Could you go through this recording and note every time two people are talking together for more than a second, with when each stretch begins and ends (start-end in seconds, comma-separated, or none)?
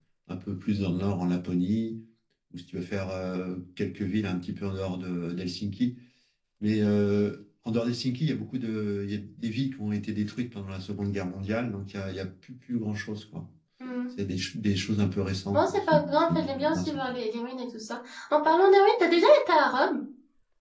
15.5-17.0